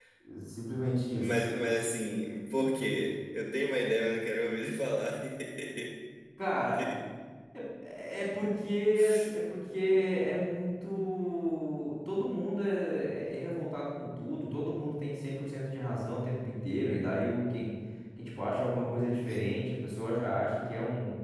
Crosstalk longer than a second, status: none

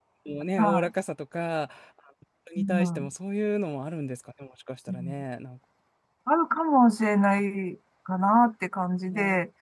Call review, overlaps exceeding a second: none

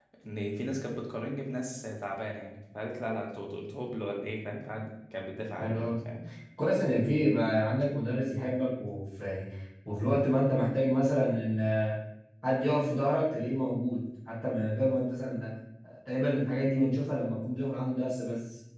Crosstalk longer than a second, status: none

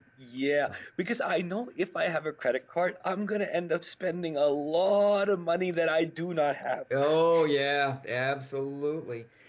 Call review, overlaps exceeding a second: none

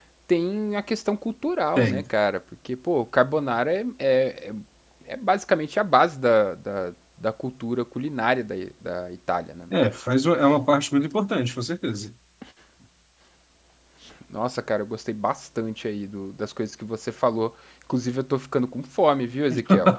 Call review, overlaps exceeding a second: none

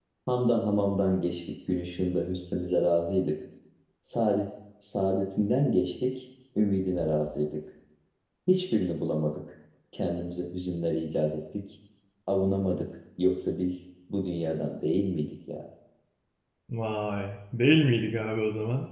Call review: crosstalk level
none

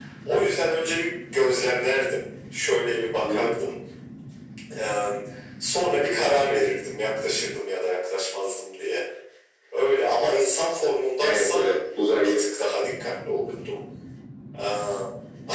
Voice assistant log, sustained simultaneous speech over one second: none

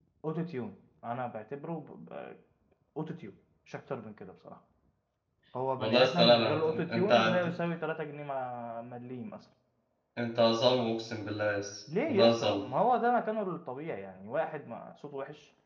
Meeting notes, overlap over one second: present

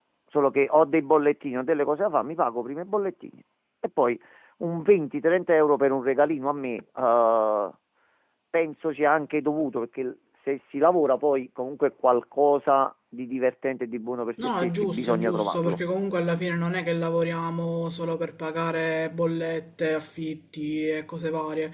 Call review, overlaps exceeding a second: present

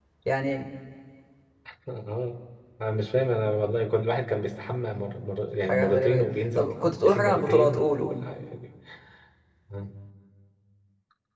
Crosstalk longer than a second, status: present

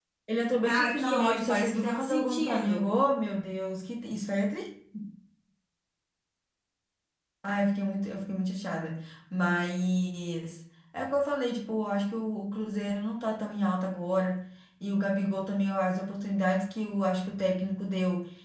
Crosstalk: present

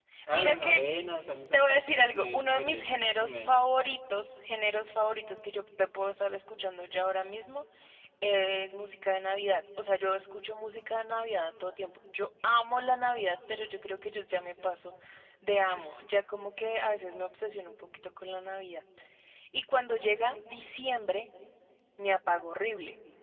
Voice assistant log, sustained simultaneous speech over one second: present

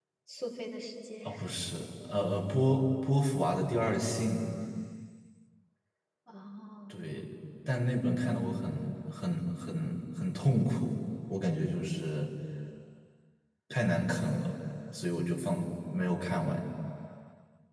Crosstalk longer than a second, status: none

